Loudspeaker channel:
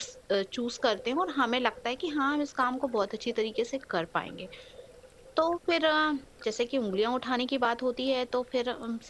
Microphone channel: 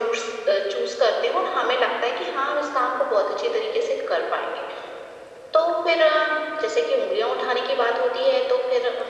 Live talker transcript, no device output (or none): none